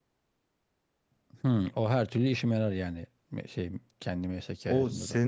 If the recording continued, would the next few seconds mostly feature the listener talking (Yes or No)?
Yes